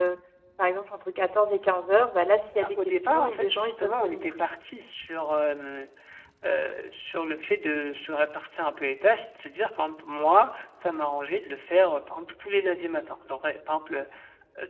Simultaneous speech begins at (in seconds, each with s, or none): 2.5 s